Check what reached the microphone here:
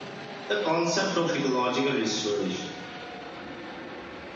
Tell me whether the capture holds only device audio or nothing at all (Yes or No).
Yes